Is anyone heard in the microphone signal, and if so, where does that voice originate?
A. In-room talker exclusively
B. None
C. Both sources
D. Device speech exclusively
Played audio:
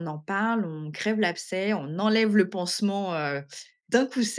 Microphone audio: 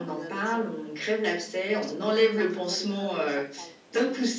C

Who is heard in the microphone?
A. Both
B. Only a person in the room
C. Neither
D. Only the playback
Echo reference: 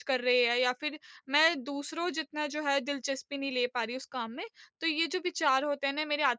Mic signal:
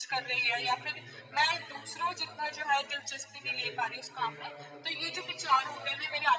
A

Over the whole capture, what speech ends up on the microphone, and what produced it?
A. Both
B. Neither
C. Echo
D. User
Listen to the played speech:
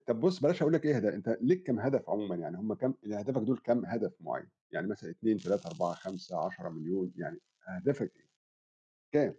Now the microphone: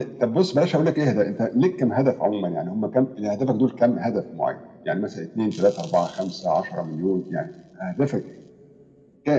C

